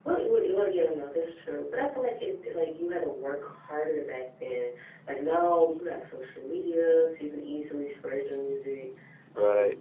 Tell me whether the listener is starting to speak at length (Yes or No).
No